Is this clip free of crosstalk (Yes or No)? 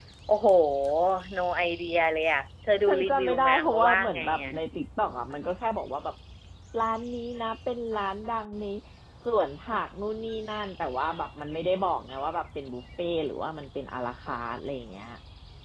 No